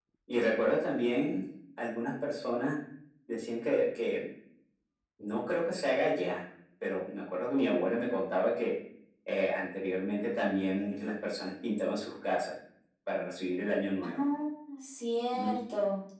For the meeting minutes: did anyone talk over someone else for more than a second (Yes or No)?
No